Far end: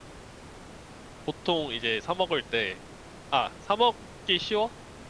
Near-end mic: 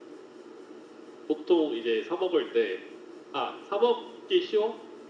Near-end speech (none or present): none